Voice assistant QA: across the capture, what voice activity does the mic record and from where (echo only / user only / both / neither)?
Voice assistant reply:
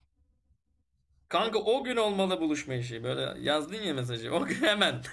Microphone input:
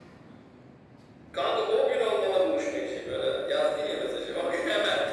echo only